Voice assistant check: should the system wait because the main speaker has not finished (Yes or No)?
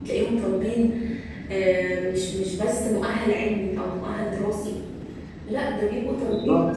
Yes